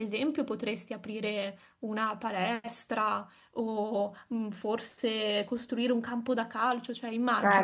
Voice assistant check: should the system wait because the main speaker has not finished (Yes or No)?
No